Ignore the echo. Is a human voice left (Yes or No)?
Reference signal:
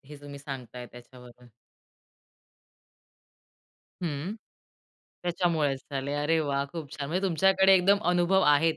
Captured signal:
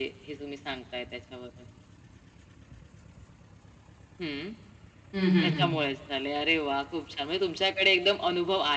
Yes